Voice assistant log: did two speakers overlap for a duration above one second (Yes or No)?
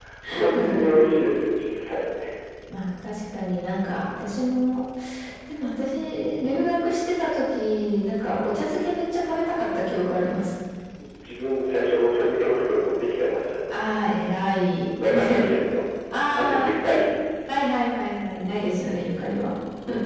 No